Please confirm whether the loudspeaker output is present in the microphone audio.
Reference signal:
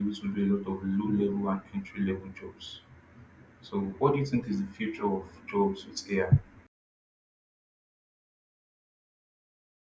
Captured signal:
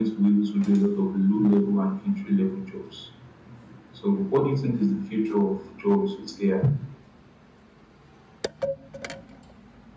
Yes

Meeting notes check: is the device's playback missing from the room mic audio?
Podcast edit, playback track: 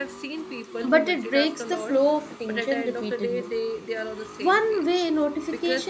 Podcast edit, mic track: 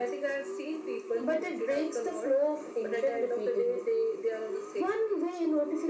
No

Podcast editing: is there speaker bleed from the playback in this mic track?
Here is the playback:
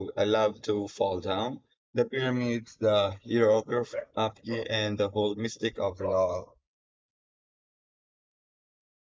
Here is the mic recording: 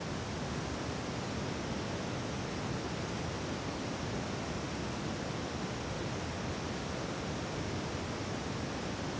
No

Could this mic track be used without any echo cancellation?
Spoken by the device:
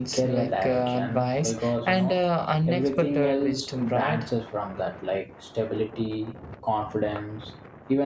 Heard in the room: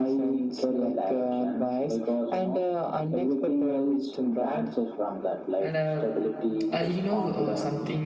No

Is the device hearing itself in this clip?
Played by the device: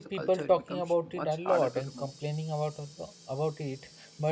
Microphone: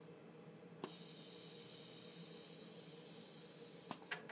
No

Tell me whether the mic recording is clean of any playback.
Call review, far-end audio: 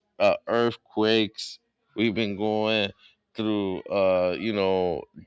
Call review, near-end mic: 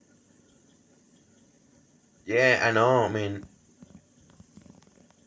Yes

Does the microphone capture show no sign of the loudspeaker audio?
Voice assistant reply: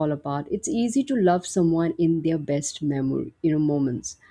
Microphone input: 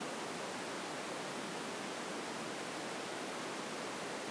Yes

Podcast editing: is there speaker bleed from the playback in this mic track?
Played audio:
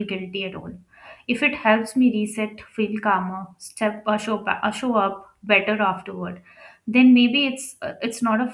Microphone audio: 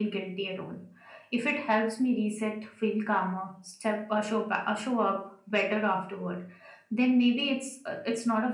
Yes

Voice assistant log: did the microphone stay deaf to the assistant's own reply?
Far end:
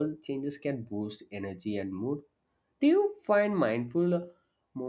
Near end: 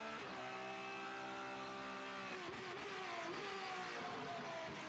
Yes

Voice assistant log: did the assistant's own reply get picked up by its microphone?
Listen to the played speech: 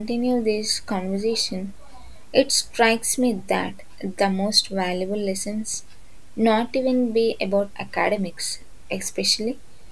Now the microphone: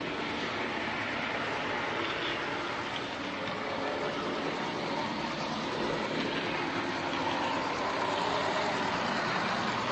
No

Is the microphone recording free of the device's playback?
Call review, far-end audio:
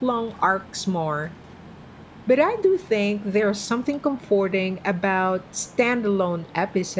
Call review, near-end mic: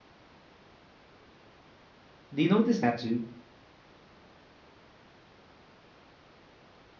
Yes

